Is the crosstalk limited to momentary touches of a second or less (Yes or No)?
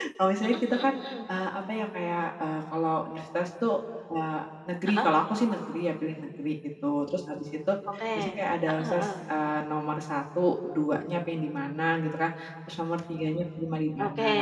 Yes